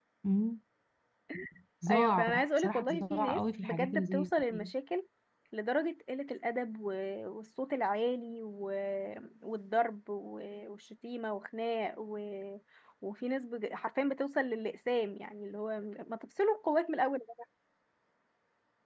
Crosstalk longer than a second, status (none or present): present